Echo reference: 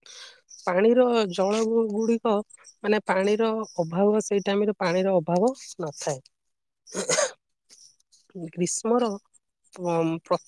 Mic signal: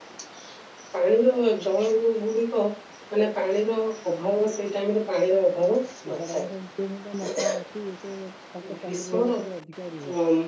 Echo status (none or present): present